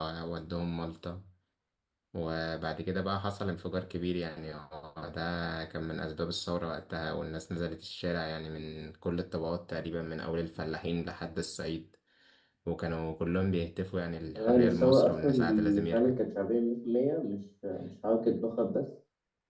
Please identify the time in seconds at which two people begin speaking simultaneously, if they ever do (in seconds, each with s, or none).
14.3 s